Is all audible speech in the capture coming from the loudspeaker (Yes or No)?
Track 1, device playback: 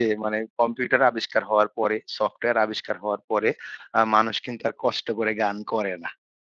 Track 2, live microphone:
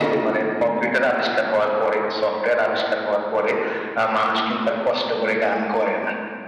Yes